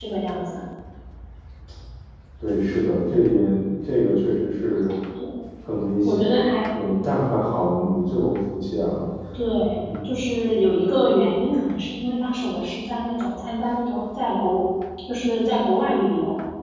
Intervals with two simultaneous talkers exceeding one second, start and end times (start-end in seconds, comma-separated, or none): none